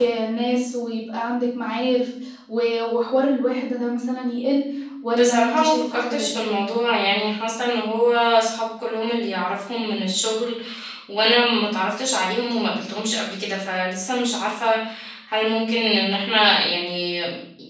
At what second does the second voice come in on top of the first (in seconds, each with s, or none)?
5.1 s